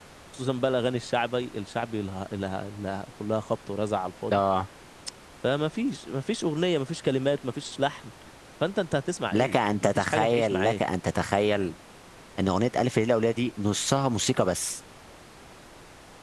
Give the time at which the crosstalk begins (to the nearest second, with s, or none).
9 s